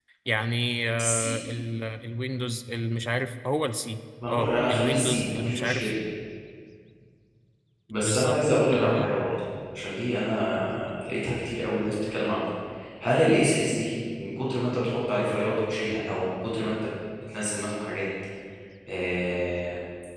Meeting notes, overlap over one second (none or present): present